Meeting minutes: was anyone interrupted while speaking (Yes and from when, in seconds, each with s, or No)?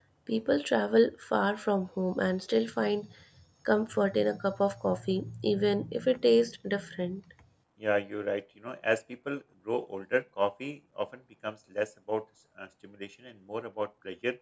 No